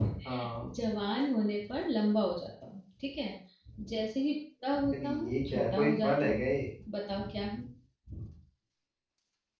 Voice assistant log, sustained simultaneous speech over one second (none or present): present